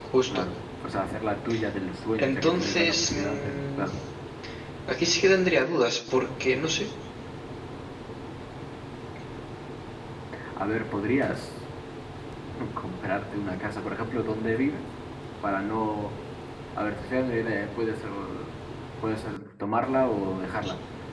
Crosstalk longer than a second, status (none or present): present